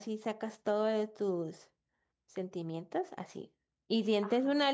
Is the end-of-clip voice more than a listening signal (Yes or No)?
No